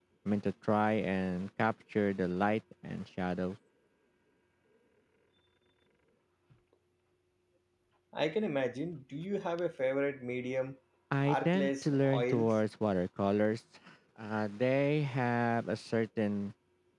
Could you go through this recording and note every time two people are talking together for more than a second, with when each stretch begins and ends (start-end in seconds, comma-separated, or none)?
11.2-12.6